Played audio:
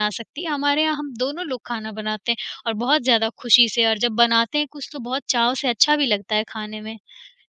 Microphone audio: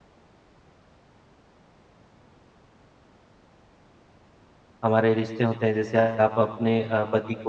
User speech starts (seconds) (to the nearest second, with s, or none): 5 s